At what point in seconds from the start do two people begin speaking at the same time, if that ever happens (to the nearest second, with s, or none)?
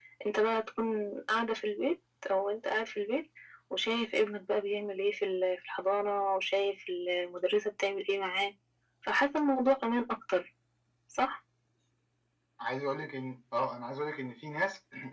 none